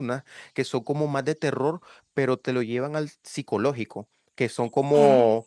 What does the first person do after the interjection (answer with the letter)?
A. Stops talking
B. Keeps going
B